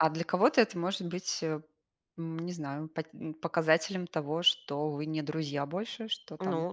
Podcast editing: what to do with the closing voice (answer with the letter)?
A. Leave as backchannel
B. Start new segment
B